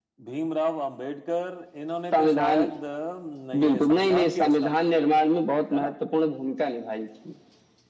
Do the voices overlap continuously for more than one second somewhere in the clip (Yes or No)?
Yes